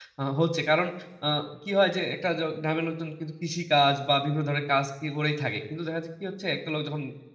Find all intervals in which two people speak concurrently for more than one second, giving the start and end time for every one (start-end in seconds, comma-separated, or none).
none